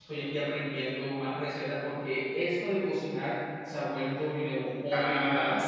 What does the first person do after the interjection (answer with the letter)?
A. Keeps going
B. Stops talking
B